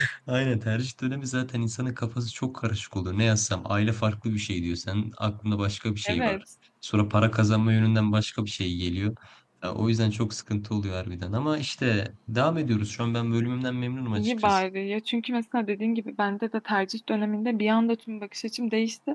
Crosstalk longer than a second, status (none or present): none